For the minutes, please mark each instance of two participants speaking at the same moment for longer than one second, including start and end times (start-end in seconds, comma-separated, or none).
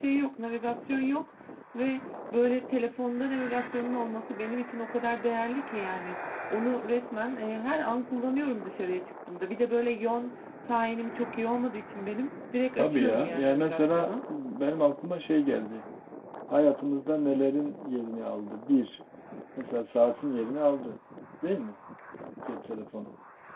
12.8-14.1